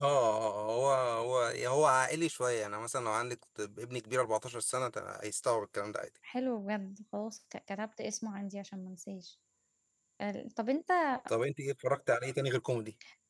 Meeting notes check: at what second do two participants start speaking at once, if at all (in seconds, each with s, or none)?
none